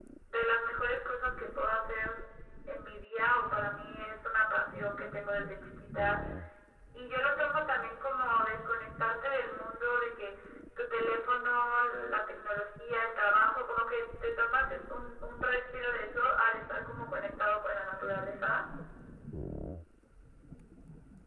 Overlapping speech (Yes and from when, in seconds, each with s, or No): No